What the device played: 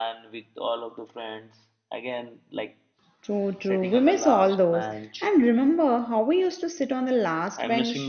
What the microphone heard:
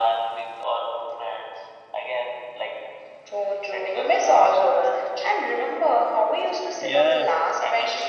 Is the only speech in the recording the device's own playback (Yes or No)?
No